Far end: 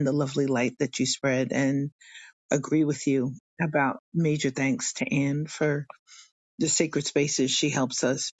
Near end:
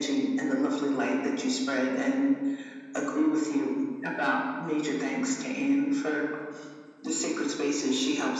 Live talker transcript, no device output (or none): none